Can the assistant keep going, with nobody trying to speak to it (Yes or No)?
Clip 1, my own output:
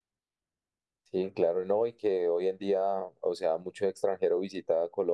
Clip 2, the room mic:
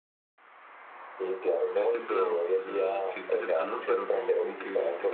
No